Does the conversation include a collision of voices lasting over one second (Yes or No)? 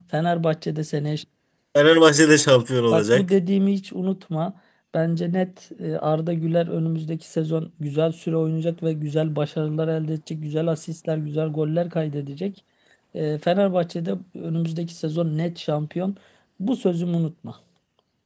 No